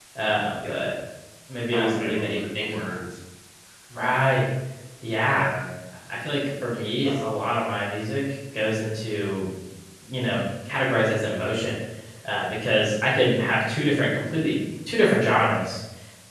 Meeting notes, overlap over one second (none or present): present